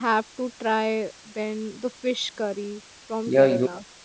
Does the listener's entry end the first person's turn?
Yes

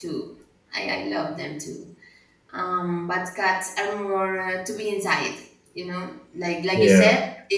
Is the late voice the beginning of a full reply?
No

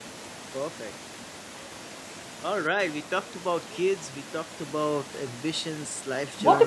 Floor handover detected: Yes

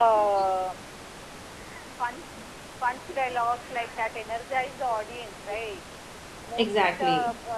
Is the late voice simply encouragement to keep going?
Yes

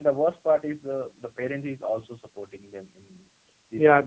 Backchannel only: No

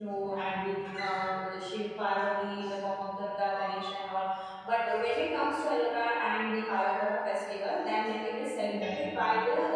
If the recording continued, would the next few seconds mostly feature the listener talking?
No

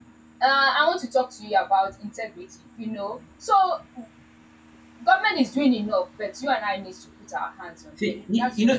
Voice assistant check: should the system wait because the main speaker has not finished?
No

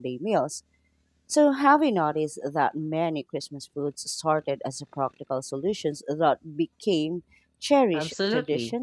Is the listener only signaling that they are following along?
No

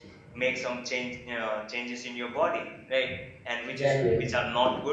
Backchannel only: Yes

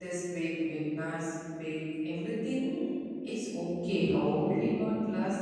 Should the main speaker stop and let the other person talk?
No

